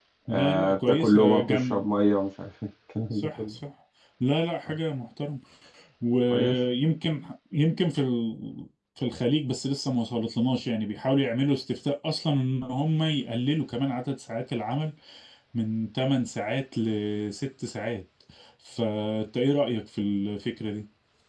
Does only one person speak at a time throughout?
No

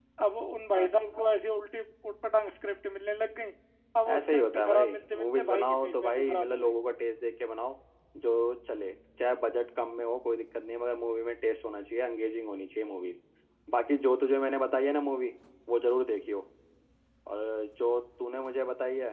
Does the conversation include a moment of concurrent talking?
Yes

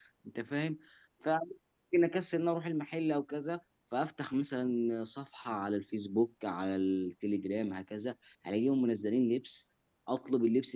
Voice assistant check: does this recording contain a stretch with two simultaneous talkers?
No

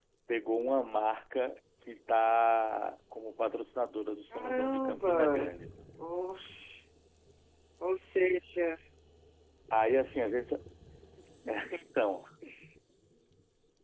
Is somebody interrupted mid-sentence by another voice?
Yes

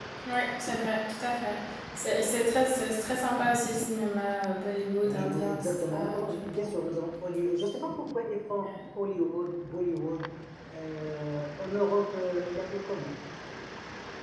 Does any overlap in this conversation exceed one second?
Yes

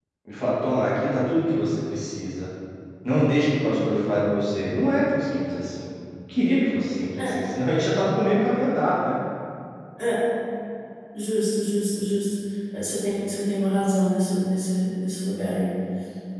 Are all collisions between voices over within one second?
Yes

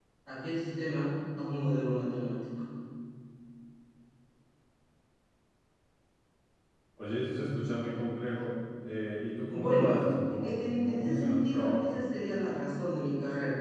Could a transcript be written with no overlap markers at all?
No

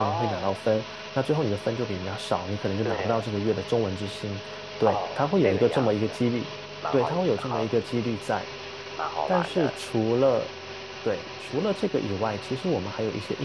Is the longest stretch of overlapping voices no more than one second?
No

